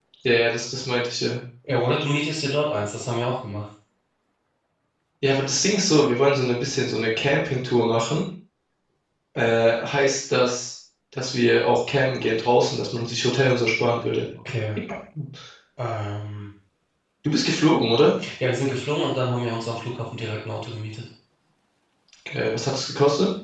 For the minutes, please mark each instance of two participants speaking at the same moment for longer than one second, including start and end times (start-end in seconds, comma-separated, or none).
none